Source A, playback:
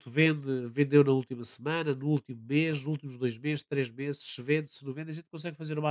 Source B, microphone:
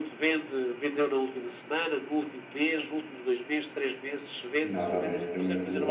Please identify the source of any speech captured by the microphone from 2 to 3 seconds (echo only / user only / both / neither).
echo only